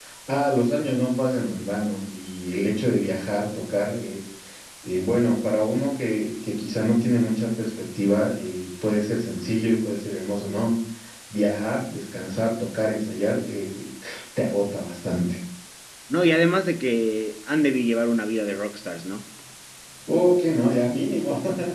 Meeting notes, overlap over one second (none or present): none